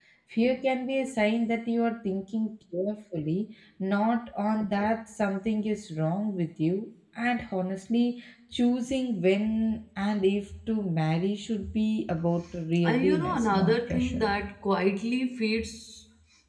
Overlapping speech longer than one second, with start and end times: 12.8-14.3

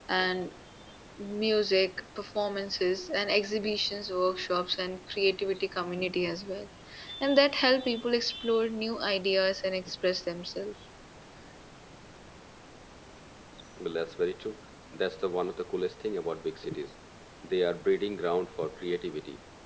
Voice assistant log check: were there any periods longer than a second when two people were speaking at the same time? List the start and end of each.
none

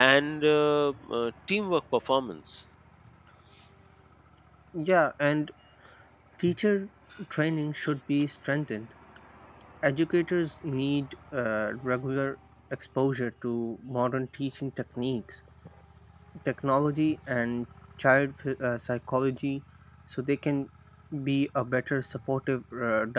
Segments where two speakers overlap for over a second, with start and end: none

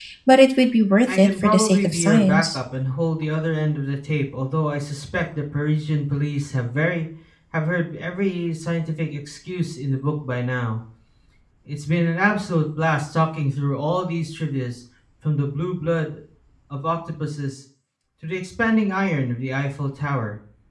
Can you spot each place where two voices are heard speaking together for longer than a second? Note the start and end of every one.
1.1-2.6

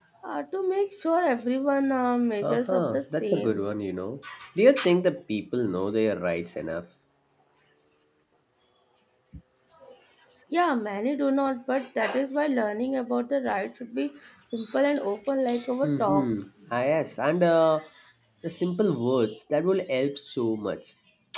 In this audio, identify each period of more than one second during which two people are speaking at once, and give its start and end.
2.4-3.6

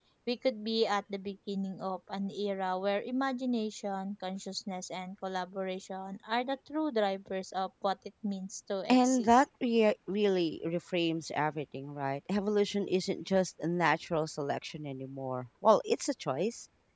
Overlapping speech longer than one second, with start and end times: none

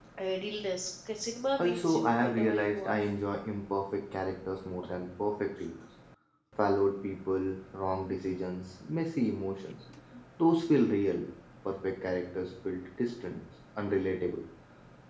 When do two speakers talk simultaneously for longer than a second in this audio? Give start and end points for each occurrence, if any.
1.6-3.0

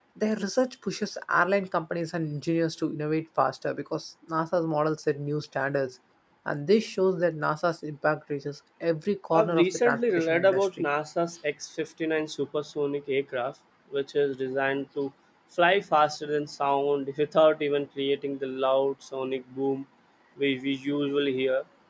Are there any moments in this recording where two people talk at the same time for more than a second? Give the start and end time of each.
9.3-10.8

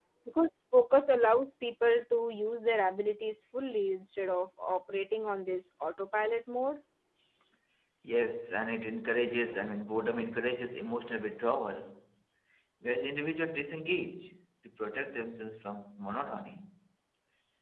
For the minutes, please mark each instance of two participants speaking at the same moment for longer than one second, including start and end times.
none

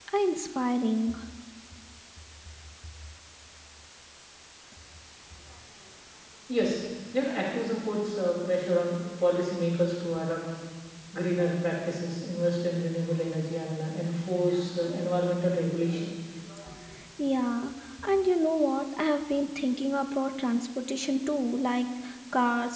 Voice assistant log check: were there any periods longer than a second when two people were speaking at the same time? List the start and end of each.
none

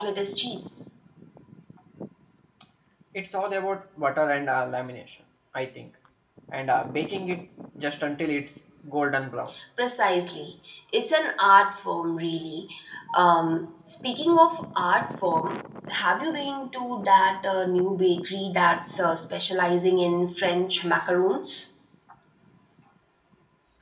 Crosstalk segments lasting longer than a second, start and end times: none

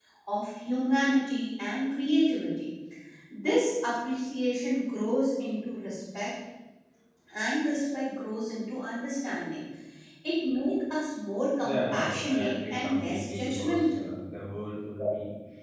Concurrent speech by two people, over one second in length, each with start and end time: 11.6-14.0

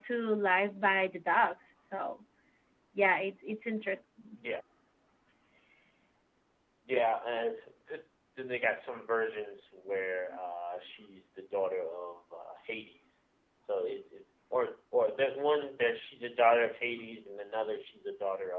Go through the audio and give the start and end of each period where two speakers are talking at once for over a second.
none

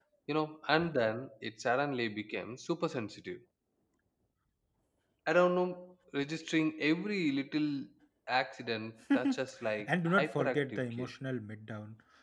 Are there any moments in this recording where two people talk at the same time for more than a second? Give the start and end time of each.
9.1-11.1

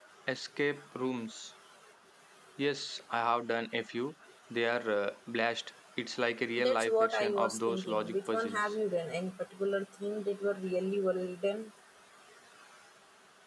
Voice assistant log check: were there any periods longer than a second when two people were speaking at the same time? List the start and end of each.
6.6-8.6

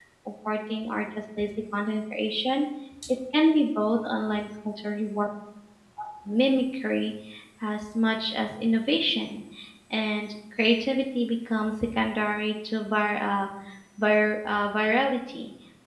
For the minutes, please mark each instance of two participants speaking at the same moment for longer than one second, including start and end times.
none

